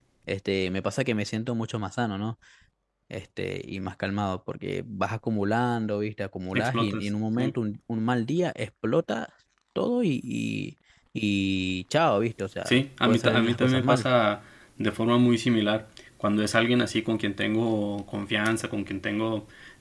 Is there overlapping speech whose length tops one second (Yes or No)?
Yes